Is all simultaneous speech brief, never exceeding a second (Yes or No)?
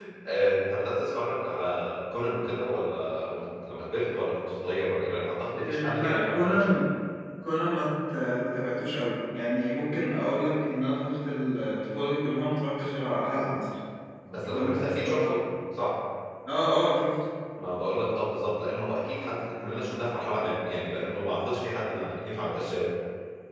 No